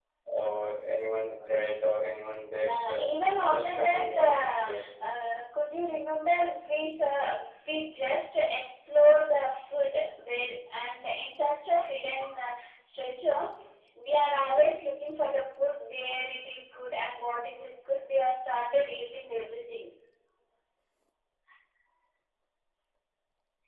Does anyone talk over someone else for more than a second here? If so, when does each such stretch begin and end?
3.5-4.8

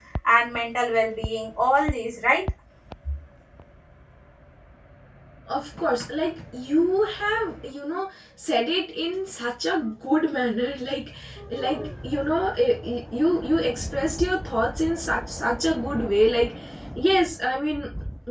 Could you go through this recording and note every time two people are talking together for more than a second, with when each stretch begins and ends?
none

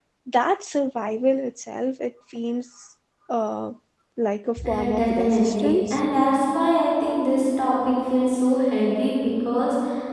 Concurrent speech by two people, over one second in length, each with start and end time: 4.6-6.0

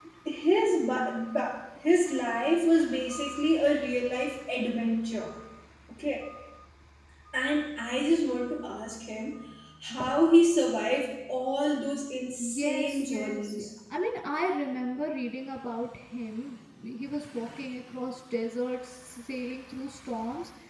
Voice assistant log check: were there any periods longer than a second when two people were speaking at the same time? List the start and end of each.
12.4-13.7

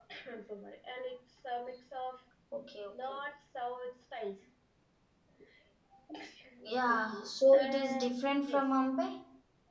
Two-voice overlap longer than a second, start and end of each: 6.6-8.6

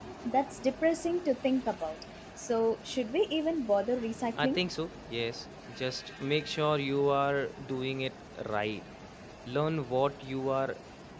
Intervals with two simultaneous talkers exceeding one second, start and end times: none

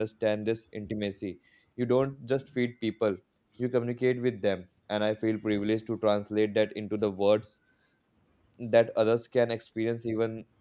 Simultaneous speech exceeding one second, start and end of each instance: none

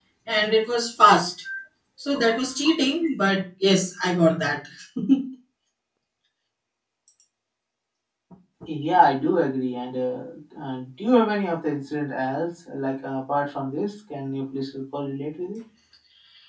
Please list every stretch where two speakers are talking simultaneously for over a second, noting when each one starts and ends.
none

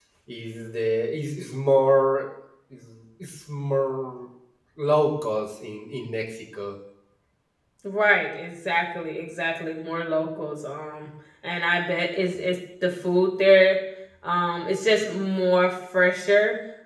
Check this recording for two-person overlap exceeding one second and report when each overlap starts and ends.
none

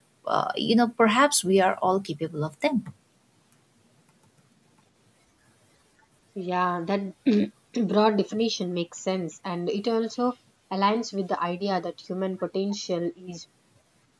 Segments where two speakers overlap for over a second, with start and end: none

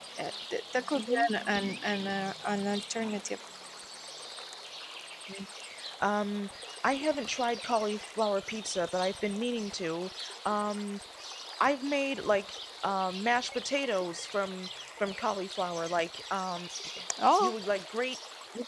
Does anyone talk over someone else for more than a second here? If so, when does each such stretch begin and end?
none

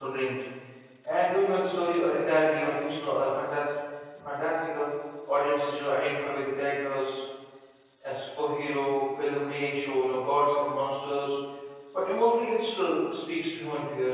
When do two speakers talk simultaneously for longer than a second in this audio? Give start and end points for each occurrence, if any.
none

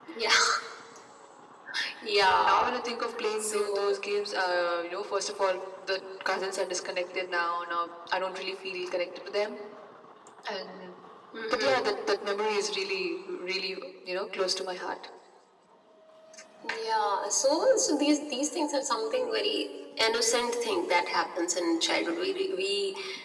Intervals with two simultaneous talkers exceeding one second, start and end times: none

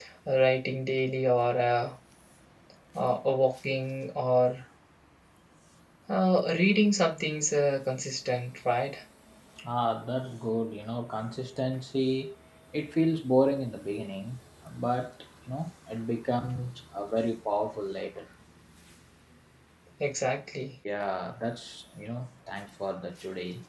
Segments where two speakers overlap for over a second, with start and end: none

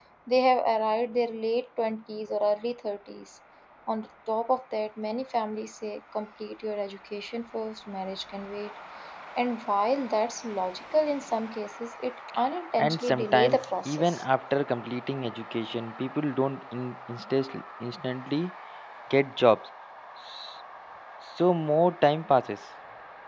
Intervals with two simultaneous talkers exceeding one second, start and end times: 12.8-14.2

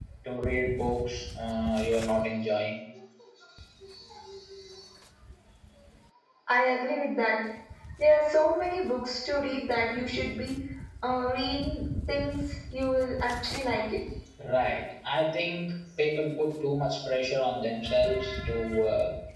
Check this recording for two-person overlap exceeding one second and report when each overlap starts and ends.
none

